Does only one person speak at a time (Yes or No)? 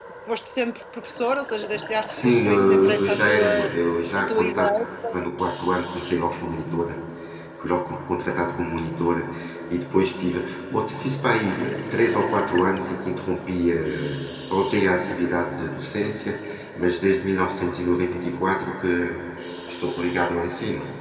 No